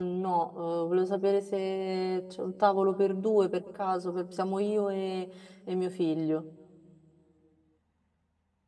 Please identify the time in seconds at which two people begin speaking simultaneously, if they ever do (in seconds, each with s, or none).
none